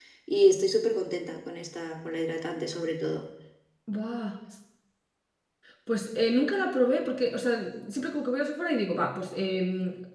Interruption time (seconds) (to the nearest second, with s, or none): none